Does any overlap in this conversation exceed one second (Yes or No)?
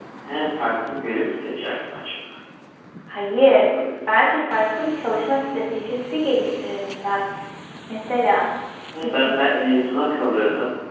No